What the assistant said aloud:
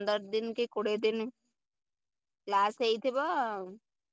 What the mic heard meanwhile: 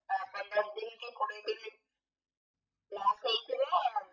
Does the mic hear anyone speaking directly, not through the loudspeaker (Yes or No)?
No